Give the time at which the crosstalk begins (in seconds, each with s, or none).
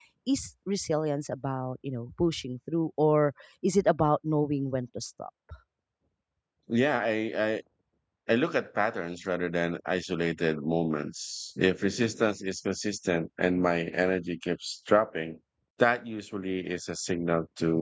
none